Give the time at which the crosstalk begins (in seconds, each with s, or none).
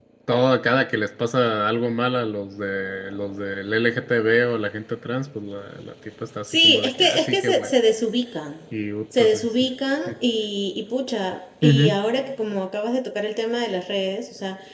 6.5 s